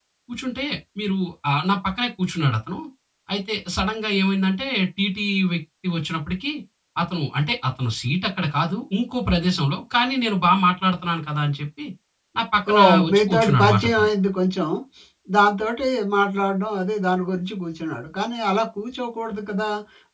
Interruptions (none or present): present